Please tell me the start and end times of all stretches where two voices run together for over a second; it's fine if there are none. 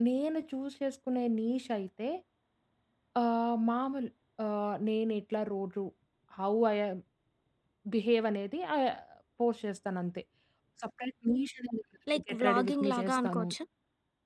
12.1-13.5

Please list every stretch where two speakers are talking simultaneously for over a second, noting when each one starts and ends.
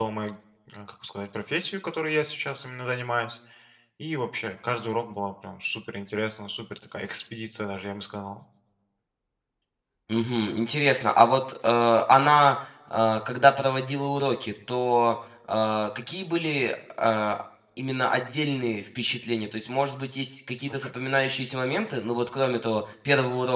none

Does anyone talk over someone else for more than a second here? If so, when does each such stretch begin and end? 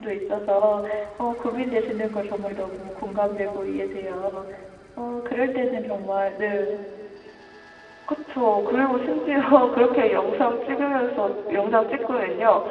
none

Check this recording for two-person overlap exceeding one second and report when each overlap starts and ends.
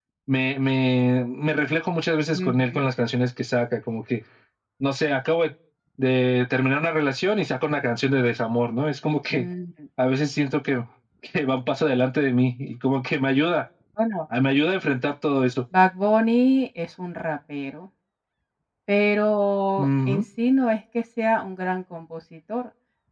none

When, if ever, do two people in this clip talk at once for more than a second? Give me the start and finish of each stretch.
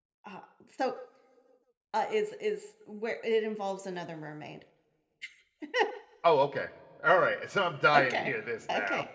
none

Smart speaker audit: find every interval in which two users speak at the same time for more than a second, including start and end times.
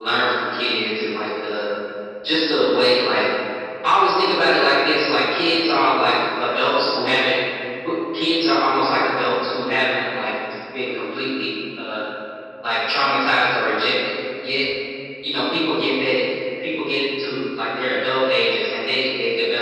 none

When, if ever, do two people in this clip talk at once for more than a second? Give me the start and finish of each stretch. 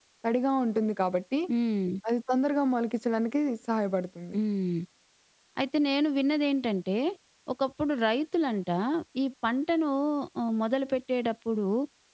none

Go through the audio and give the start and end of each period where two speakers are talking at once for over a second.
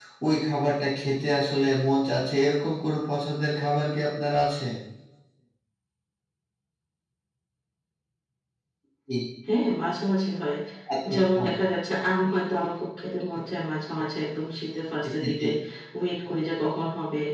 none

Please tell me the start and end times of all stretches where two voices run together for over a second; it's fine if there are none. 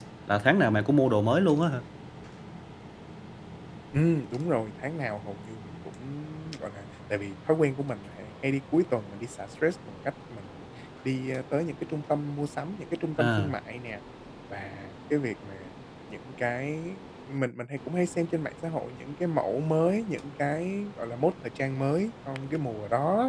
none

